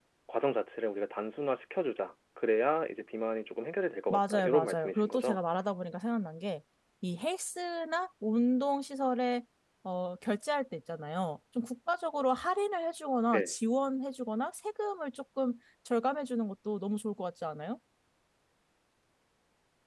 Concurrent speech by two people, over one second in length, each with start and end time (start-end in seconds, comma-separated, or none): 4.1-5.4